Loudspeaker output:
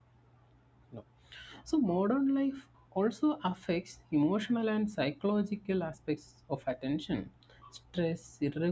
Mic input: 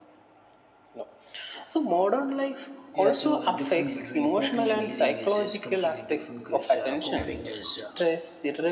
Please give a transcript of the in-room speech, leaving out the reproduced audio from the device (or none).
Yeah, so the difference between coping and healing is, is completely different because uh, coping is, uh,